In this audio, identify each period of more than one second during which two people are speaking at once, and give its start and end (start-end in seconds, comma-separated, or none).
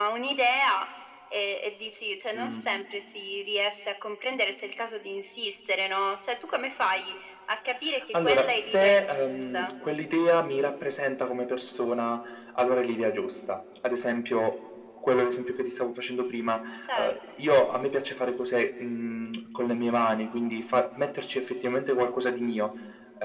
8.2-9.7